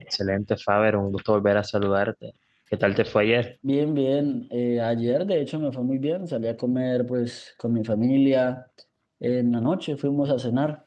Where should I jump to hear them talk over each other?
none

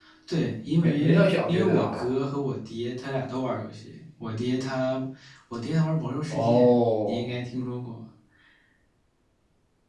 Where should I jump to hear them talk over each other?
1 s

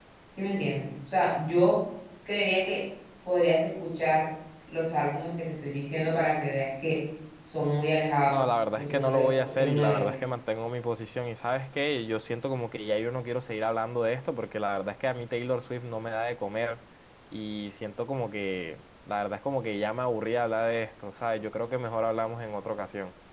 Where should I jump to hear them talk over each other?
8 s

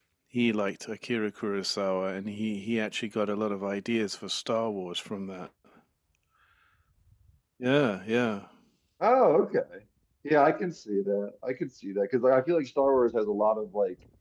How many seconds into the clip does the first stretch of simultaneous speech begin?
none

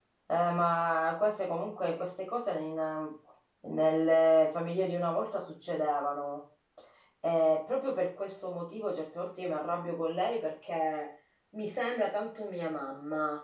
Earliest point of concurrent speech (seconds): none

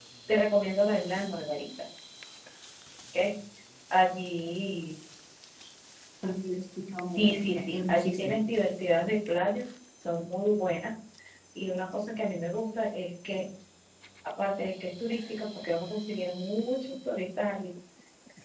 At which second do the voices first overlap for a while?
7 s

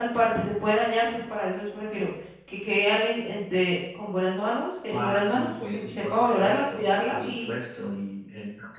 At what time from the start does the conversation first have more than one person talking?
5 s

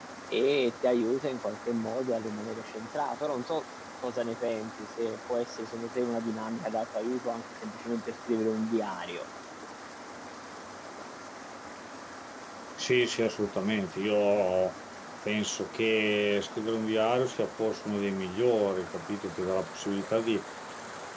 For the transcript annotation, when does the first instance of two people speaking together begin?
none

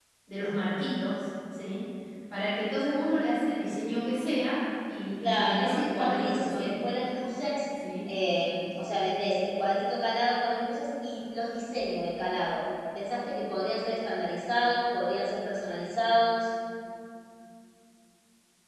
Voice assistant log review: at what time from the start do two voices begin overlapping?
5 s

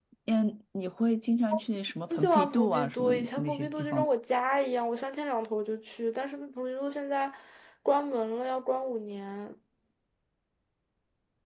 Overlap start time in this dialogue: 2 s

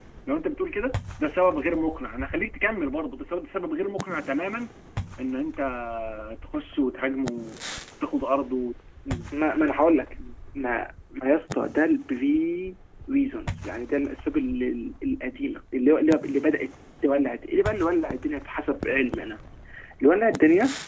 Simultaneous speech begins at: none

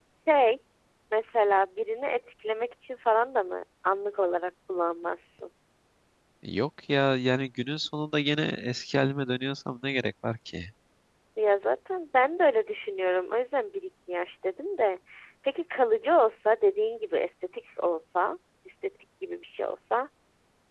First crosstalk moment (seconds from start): none

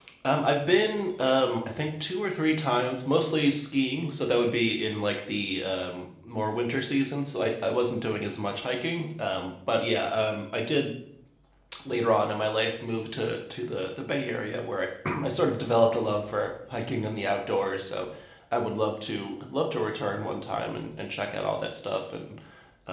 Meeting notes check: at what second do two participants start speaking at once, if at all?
none

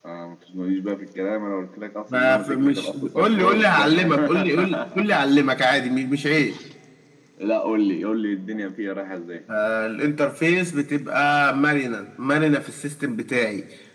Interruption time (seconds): 2 s

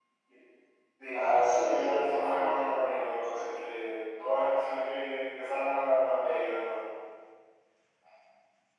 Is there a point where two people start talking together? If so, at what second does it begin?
1 s

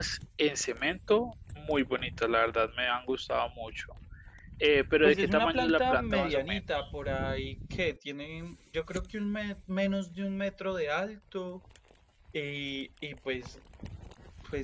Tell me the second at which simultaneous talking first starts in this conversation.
5 s

